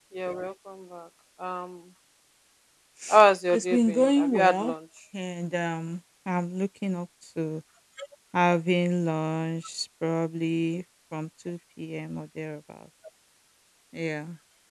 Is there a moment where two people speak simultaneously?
Yes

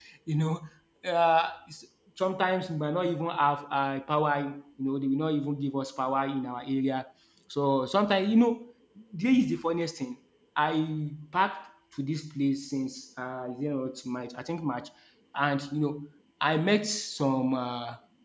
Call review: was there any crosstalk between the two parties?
No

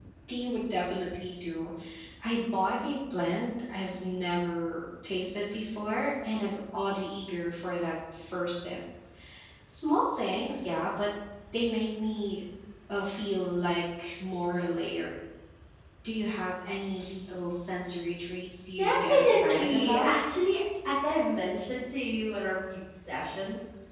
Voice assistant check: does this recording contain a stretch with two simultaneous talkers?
Yes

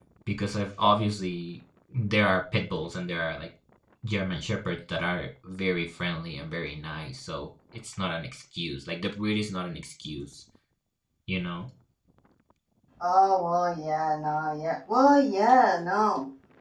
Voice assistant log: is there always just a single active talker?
Yes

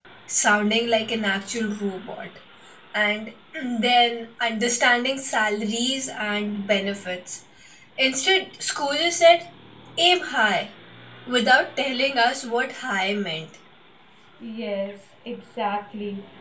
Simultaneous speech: No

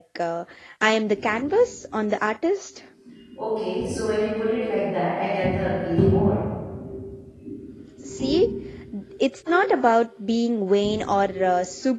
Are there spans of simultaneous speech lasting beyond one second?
No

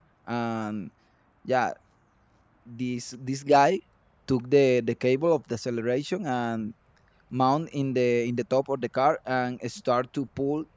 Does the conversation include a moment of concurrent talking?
No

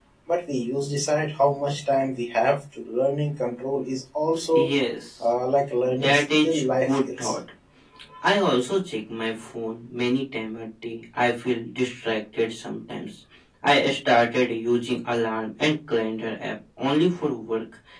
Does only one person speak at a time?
No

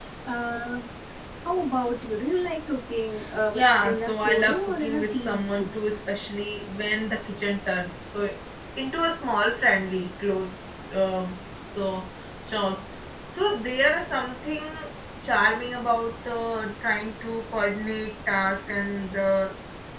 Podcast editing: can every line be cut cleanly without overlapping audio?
No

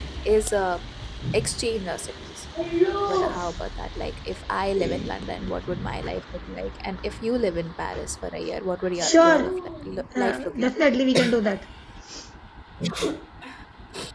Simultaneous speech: Yes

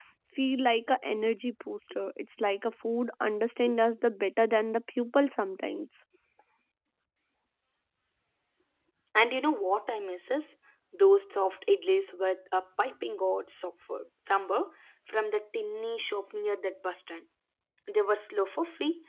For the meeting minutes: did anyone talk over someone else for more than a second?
No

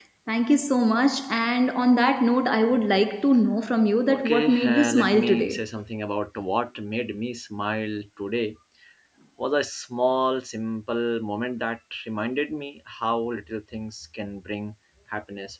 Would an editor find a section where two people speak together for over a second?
Yes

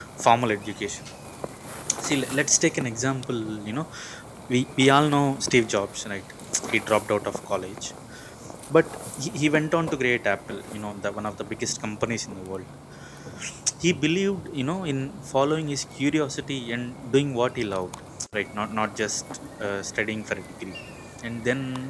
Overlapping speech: No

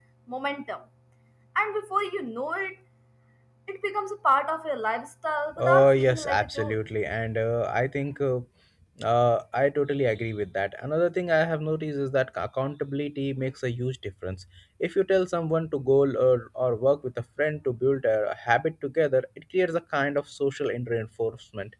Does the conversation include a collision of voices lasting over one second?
Yes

